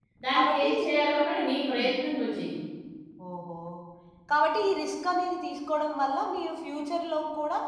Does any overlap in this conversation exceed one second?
No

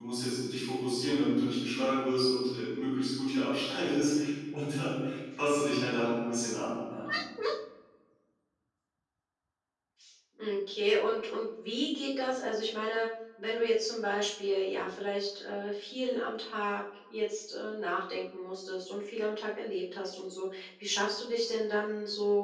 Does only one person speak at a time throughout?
Yes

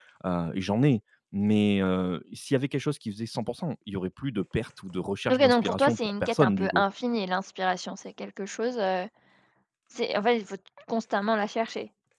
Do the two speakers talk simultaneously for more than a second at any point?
Yes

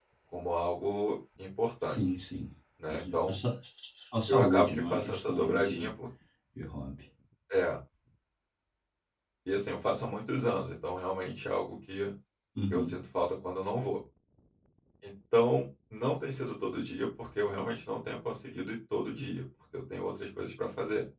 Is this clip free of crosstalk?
No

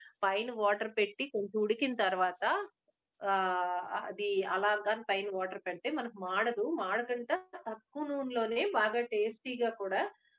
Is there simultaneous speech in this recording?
No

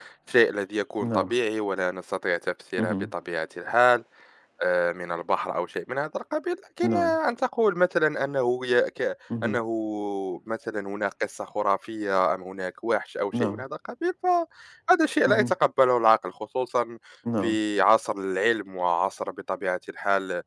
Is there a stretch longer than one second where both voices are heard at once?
No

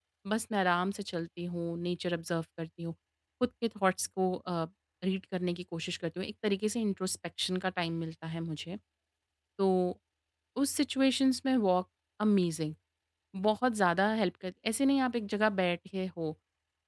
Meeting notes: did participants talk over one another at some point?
No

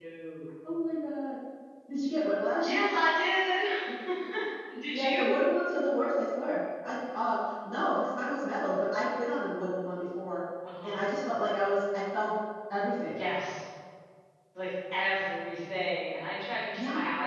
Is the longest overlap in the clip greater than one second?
No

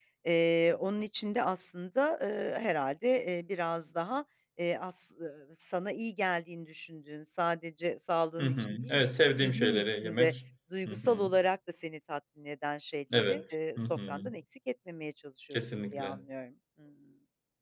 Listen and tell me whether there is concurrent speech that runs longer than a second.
Yes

